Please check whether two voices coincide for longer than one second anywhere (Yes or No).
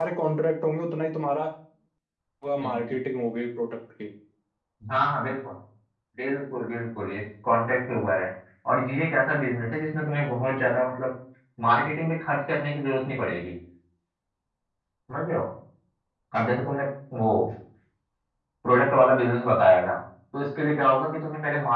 No